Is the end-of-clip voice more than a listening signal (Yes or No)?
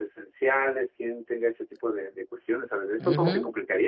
Yes